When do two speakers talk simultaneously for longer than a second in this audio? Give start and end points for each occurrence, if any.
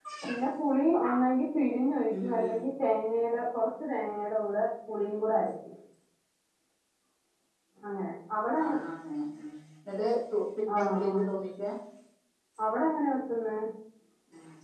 none

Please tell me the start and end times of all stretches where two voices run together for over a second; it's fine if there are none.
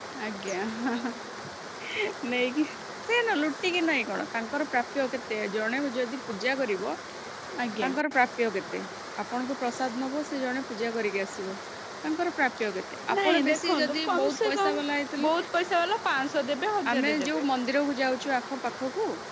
13.2-14.8

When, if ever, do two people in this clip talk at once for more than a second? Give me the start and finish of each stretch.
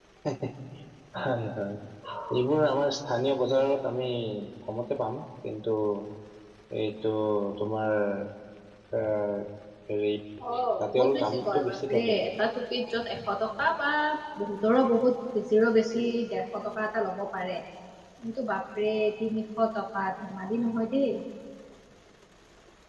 10.9-12.2

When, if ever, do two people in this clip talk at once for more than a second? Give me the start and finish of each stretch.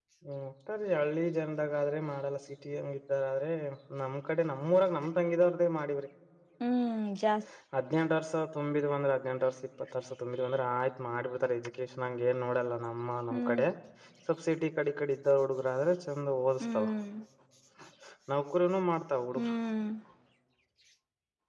none

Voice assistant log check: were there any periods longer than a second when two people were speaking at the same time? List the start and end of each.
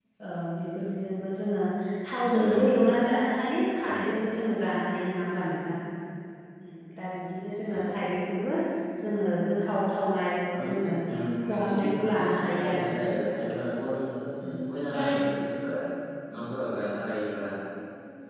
11.5-12.9

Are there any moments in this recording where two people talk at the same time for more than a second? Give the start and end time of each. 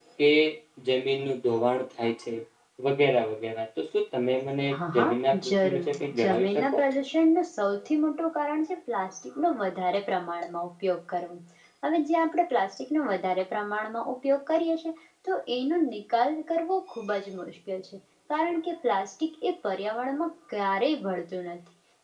4.9-6.8

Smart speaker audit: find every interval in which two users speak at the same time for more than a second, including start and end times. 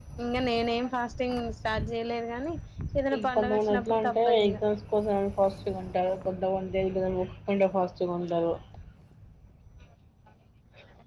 3.2-4.6

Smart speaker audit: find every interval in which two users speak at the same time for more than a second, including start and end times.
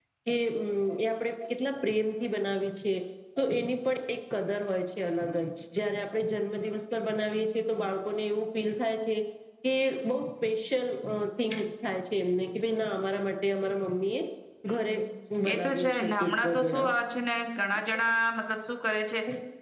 15.5-16.9

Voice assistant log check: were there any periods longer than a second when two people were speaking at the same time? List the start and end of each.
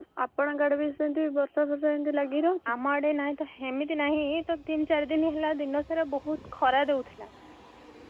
none

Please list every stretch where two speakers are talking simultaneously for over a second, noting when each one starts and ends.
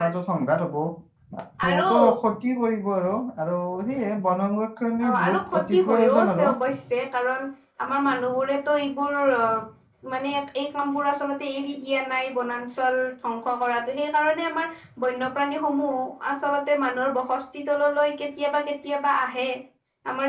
5.0-6.5

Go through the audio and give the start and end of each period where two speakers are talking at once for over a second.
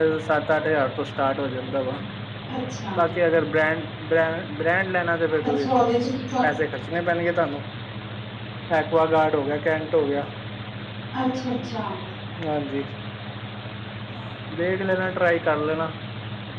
none

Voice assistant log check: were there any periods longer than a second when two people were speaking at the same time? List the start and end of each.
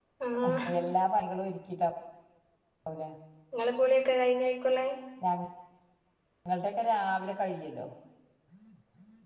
none

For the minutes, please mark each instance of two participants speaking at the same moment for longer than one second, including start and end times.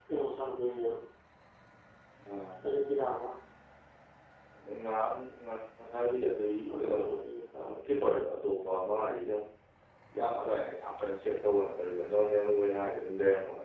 none

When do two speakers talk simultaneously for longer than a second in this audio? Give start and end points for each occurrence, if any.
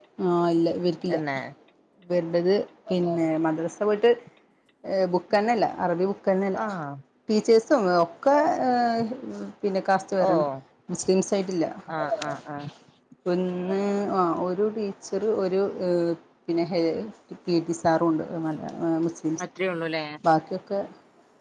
none

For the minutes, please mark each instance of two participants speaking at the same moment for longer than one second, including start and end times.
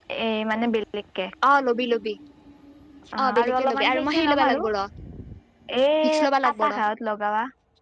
3.4-4.6

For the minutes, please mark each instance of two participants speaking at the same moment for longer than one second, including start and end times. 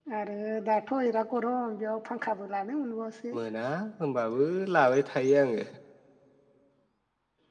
none

